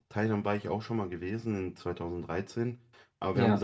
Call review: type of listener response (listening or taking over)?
listening